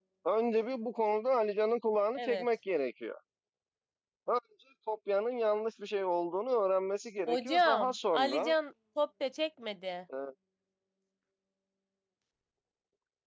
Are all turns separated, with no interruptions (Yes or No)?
No